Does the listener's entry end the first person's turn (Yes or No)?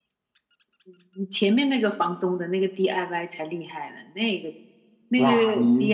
Yes